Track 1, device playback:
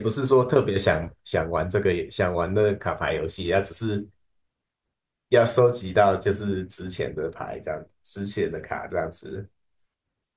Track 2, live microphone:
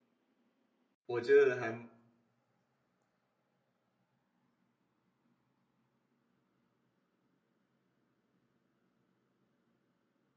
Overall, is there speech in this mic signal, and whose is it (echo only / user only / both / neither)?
user only